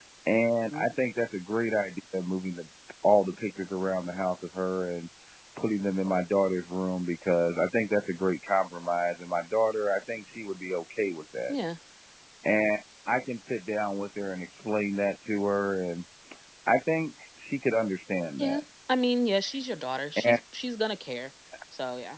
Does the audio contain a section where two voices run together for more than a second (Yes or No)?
No